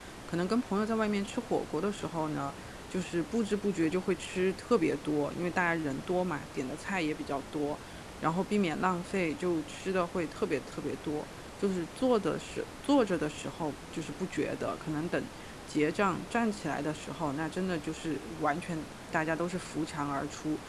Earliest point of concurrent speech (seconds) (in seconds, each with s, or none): none